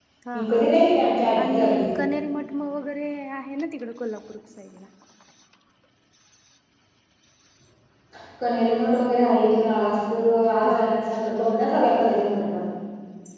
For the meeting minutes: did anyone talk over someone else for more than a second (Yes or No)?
No